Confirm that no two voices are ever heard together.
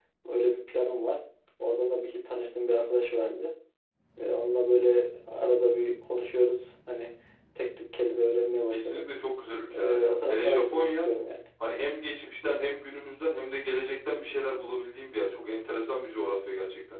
No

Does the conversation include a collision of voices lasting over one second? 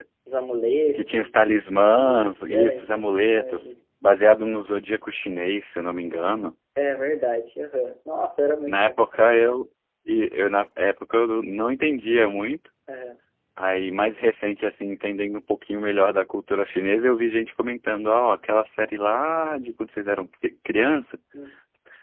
Yes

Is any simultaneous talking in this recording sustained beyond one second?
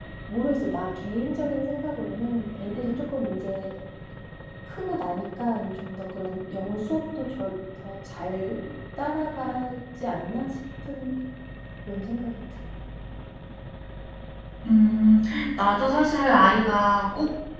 No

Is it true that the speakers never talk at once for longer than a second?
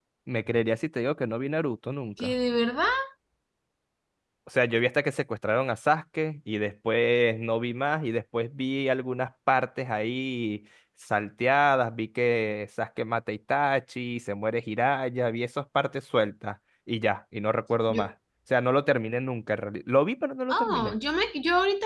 Yes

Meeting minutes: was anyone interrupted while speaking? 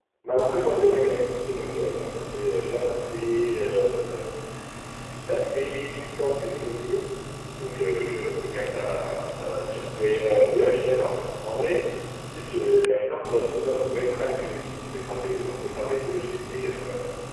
No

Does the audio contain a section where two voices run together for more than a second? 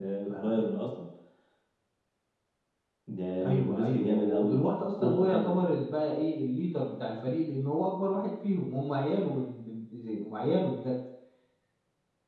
Yes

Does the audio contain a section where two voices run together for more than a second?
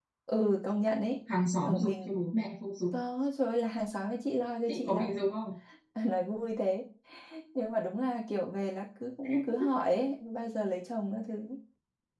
No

